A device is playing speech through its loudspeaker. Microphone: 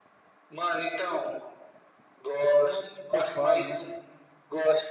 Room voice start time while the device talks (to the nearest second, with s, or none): 3 s